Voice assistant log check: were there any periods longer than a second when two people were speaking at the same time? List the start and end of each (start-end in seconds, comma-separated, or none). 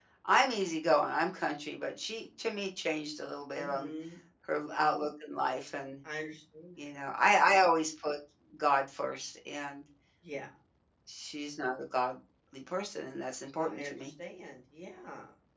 none